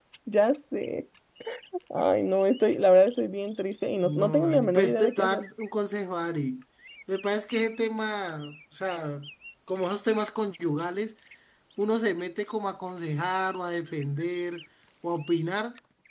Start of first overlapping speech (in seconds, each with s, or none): 4.0 s